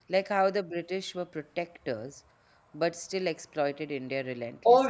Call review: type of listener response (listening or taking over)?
taking over